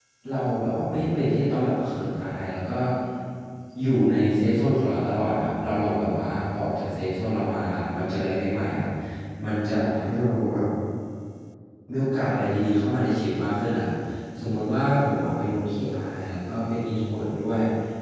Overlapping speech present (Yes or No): No